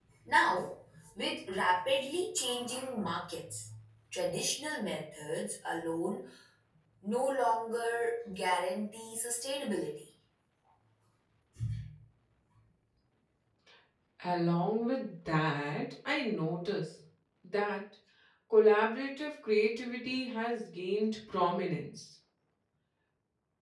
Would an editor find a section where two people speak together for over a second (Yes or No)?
No